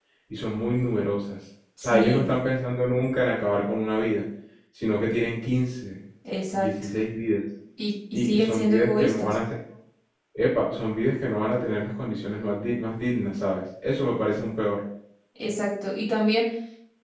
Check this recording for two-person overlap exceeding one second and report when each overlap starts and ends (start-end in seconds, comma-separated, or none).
8.1-9.3